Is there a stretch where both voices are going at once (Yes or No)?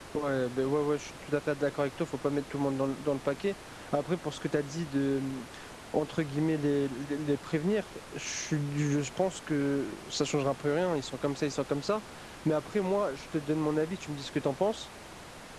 No